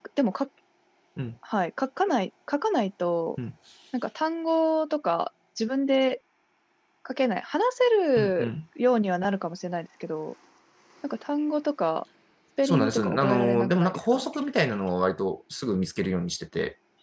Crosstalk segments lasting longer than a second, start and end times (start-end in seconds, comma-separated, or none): 12.6-14.3